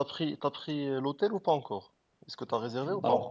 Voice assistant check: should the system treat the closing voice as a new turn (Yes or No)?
Yes